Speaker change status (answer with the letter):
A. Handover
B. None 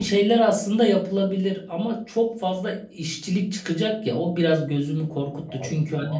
B